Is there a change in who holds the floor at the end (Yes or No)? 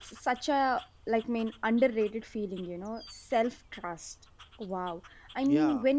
No